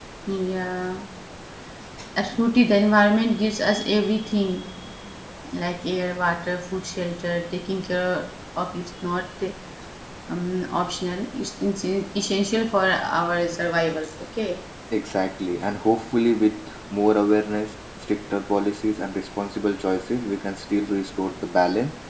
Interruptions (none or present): none